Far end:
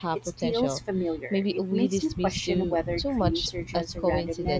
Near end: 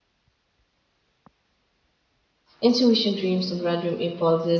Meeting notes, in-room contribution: present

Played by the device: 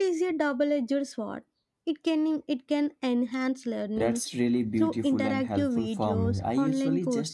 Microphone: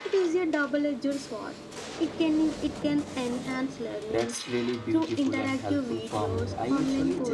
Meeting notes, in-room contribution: none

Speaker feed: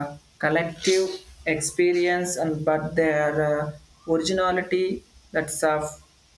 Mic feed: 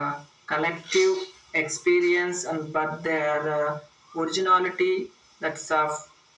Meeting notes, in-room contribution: none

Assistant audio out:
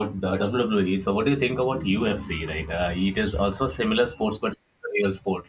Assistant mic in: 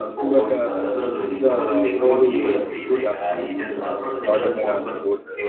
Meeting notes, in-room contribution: present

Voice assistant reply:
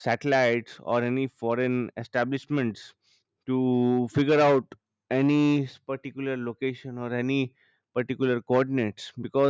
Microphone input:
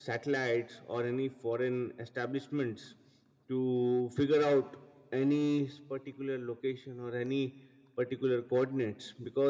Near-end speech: none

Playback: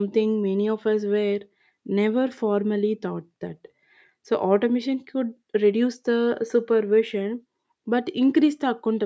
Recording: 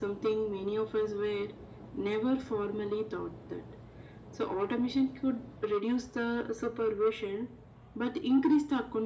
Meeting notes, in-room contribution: none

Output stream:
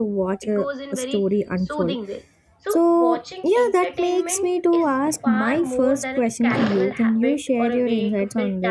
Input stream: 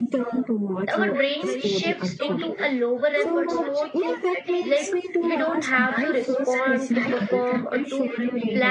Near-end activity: present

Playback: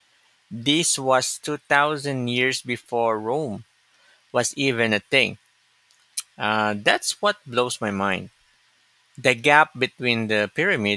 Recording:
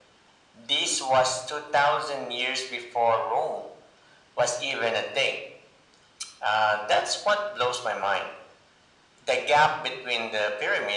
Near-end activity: none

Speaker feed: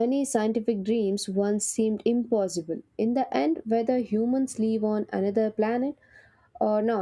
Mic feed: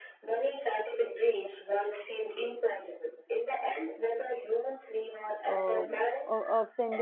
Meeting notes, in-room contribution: present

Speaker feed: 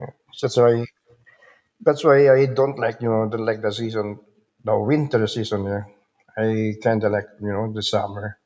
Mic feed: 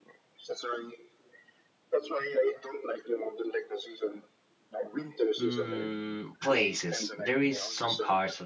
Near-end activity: present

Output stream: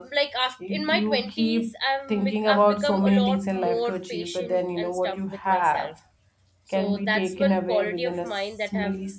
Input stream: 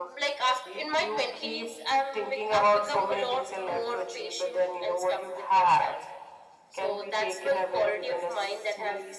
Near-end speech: none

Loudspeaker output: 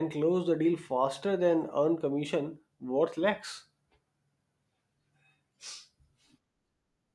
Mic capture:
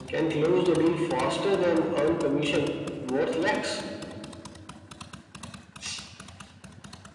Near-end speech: none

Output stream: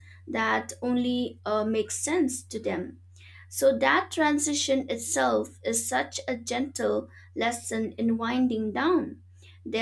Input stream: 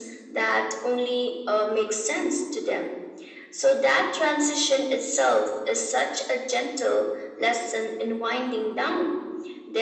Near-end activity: none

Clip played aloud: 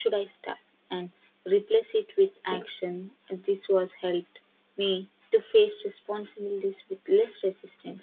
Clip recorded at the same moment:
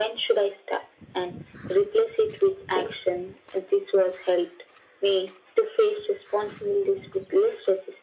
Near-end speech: none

